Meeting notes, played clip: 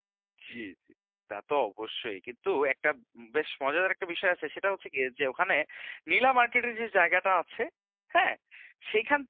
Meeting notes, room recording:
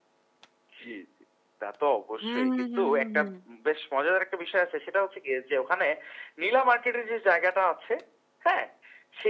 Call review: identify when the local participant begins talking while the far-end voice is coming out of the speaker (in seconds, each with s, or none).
2.2 s